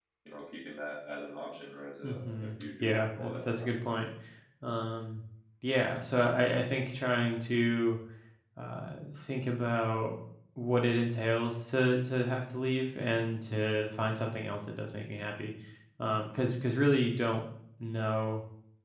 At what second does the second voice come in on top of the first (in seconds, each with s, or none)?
2.0 s